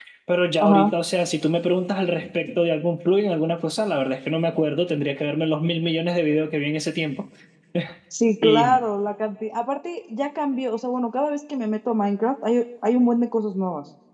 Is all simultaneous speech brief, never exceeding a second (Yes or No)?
Yes